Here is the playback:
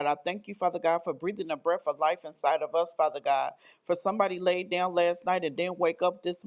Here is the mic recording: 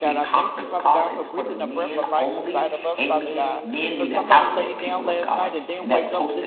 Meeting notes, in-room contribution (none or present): present